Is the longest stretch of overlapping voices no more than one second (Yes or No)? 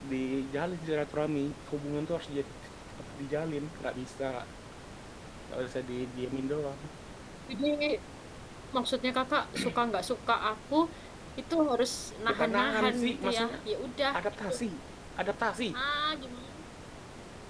No